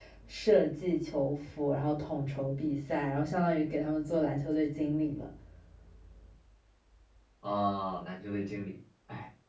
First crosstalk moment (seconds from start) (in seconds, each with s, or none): none